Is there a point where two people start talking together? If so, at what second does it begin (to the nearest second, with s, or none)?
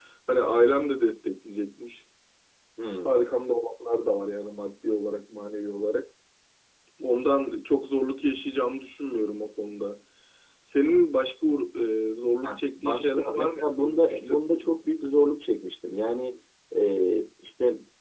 12 s